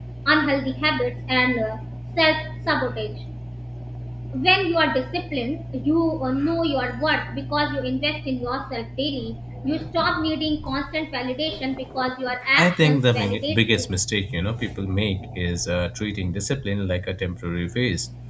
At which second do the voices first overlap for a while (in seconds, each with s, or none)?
12.6 s